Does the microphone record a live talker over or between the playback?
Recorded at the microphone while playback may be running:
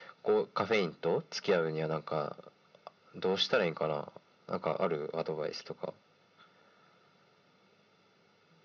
No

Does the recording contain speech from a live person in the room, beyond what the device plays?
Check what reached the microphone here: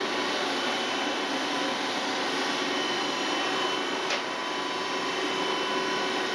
No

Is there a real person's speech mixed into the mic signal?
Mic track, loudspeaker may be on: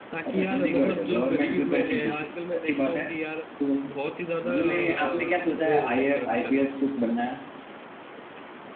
Yes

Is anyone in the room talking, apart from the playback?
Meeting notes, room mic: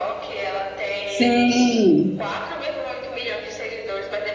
Yes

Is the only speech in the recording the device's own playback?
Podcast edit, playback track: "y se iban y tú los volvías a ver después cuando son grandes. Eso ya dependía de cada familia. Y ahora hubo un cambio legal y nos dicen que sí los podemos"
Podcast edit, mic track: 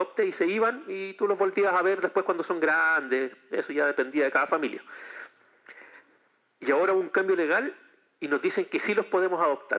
Yes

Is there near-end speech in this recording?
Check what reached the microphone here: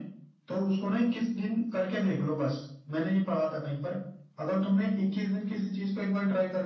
No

